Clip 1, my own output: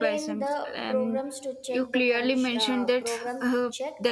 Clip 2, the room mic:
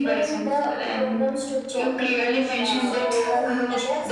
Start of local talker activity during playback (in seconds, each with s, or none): 1.7 s